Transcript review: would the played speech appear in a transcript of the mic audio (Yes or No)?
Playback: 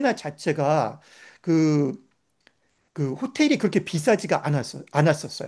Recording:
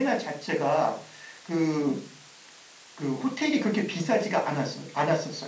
Yes